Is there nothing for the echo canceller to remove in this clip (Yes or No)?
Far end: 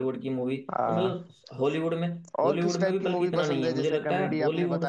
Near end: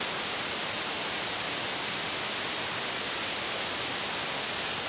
Yes